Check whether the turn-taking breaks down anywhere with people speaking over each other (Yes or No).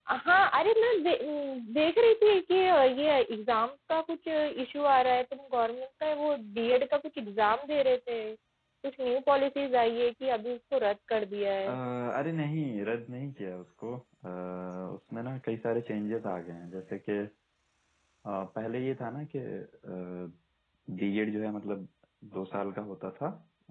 No